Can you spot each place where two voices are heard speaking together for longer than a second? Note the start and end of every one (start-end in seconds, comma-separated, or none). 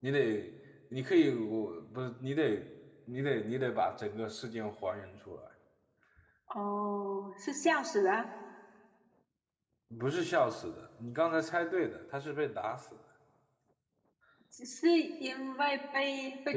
none